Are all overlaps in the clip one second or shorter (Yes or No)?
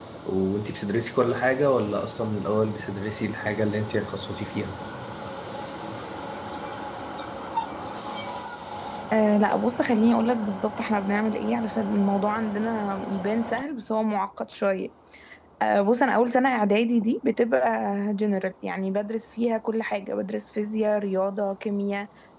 Yes